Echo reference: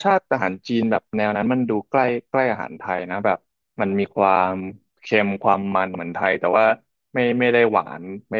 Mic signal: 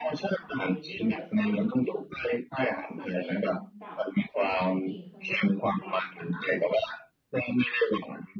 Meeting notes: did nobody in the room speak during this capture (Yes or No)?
No